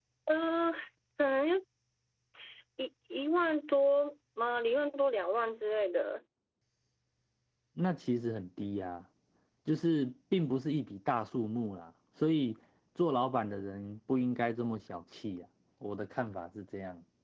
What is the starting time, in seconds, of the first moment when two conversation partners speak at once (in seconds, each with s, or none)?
none